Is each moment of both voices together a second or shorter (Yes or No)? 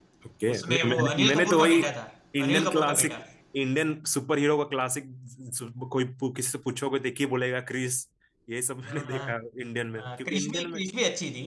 No